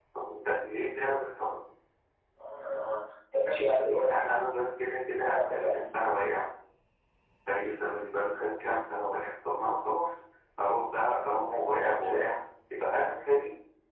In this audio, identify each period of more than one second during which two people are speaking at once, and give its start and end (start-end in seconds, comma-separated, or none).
none